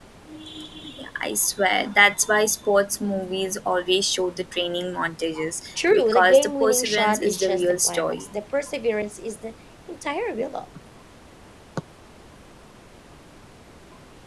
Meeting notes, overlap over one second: present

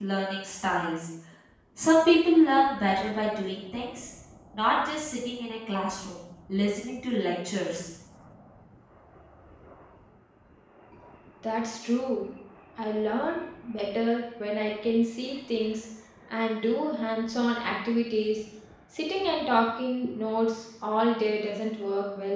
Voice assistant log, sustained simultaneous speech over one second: none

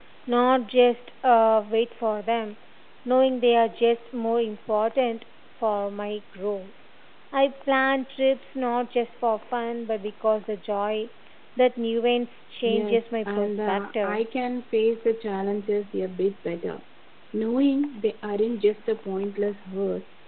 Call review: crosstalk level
present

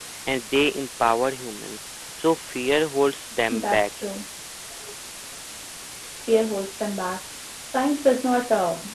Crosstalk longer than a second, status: none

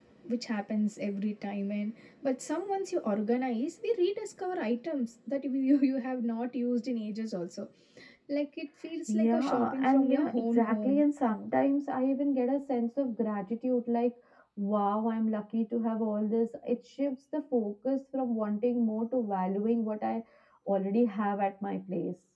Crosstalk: present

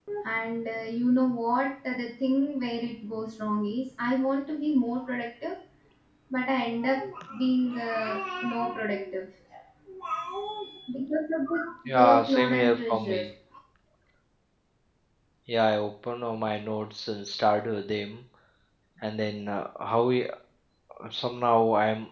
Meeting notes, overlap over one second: present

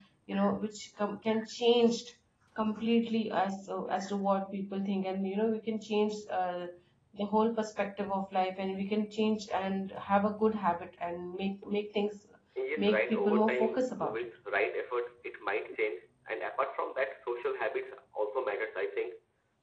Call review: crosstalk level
present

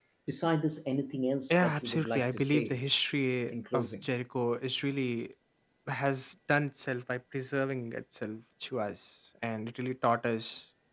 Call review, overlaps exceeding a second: present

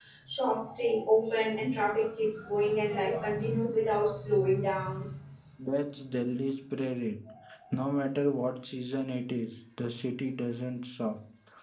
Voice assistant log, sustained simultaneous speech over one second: none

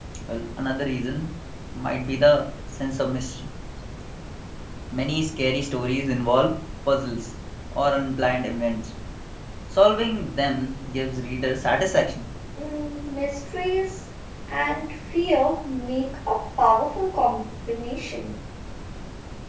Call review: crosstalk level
none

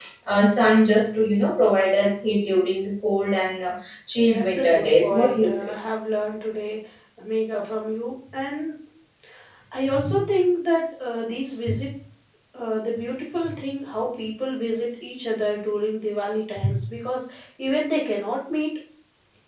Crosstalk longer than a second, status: present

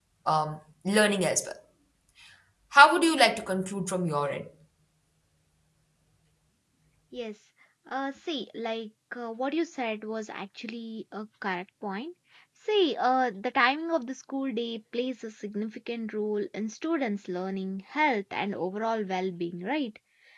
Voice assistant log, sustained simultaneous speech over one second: none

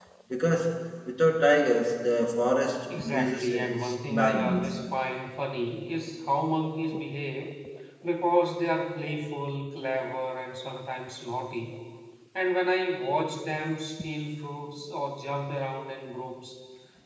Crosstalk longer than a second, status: present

